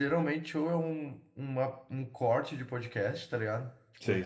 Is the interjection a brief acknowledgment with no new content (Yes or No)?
Yes